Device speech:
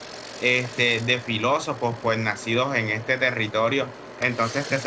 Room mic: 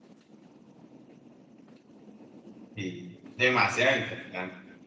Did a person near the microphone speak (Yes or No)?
Yes